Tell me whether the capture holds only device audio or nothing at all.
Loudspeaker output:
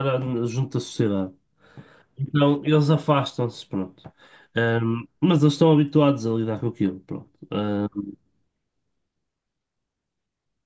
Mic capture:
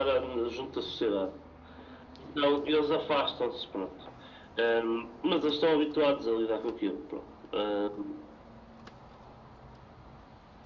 Yes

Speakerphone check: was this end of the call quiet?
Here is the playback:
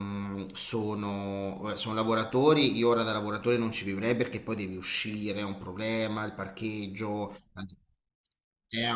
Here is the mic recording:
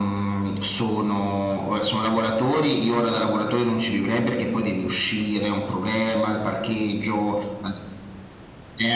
Yes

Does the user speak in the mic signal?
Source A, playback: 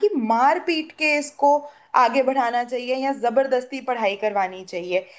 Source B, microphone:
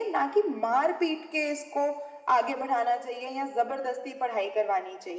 No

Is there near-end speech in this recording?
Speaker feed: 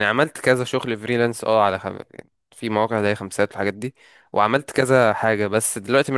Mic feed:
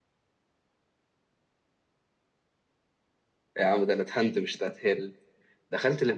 Yes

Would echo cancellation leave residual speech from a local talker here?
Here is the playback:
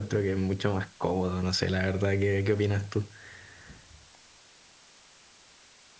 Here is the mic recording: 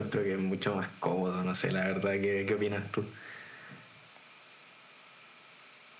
No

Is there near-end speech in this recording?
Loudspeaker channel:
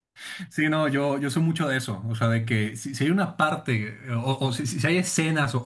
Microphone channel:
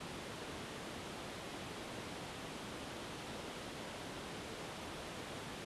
No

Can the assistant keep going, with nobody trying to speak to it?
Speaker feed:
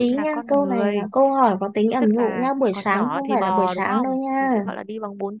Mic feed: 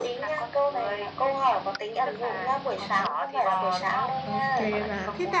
No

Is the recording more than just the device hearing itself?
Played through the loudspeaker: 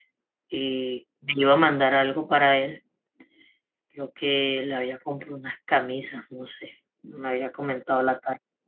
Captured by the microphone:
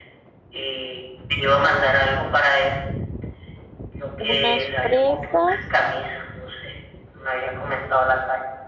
Yes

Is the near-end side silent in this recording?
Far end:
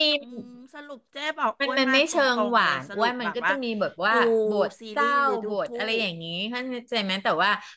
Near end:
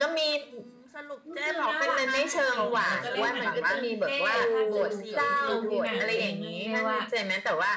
No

